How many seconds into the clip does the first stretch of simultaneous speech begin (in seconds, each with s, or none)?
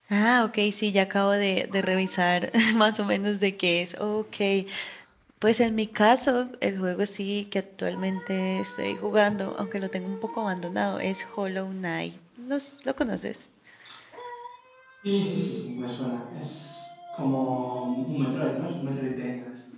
none